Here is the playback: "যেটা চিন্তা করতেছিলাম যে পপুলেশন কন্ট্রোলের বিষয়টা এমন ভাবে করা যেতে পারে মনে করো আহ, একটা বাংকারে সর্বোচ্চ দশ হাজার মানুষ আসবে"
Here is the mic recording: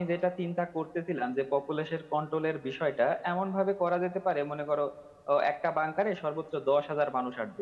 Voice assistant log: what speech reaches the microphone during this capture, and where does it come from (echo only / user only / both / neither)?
echo only